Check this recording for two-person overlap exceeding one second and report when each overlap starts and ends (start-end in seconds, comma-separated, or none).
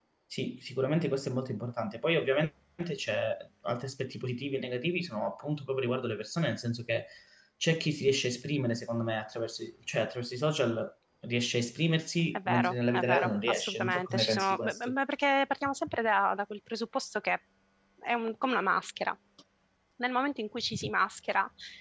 12.3-14.9